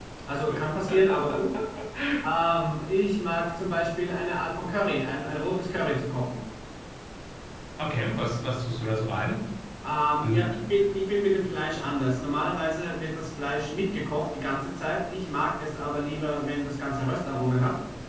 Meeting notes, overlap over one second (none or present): none